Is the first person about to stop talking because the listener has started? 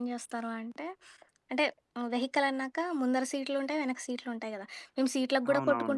No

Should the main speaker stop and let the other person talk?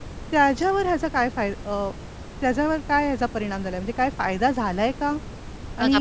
Yes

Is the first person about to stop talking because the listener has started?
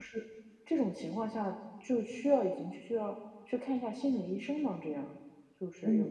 Yes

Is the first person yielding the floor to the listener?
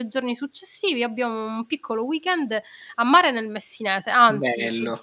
No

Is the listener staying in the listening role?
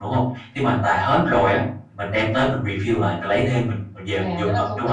No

